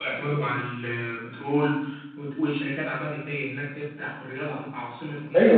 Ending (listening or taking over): taking over